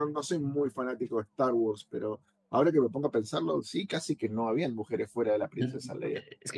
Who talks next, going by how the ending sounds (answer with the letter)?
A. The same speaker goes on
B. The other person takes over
B